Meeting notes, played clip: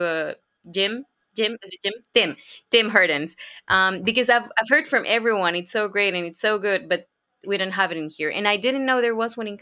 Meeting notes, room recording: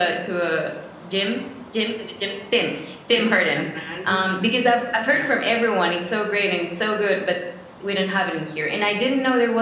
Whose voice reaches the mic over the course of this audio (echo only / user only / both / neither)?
both